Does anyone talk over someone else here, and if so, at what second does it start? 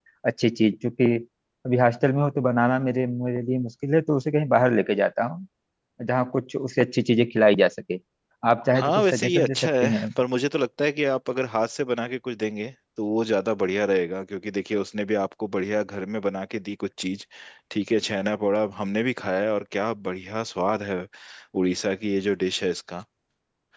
8.7 s

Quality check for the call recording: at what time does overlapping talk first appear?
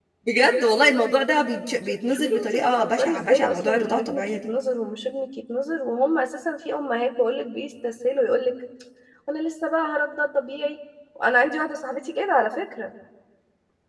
2.1 s

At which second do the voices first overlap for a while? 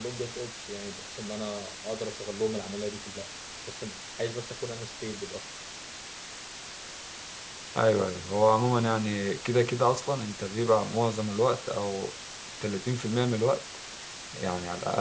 none

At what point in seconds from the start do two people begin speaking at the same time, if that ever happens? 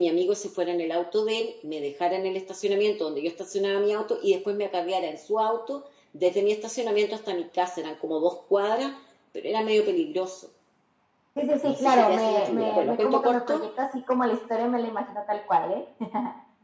11.6 s

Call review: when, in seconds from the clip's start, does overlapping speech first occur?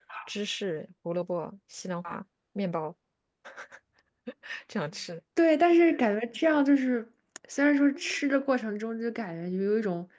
none

